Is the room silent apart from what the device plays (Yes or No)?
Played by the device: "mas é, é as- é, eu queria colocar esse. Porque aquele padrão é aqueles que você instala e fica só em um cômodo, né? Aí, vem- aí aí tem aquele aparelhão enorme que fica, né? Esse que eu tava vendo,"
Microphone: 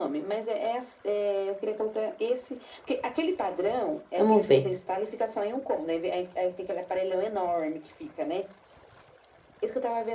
No